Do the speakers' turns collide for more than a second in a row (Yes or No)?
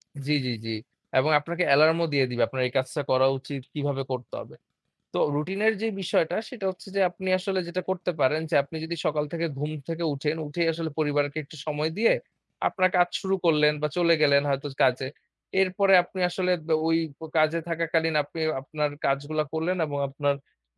No